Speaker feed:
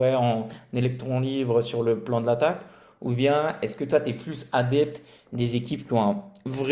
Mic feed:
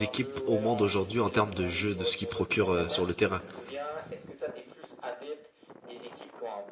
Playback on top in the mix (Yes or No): No